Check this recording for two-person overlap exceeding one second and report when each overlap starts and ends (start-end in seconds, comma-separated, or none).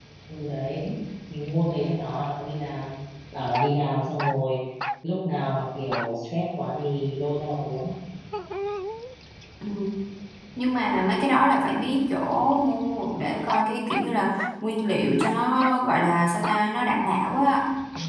none